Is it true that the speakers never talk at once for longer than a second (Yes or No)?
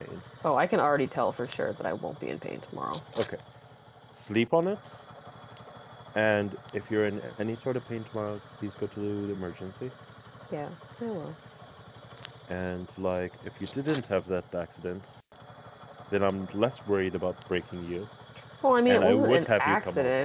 No